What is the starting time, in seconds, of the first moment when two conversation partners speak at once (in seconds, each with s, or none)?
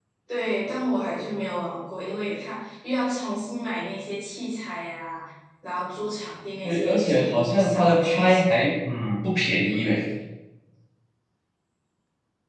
6.6 s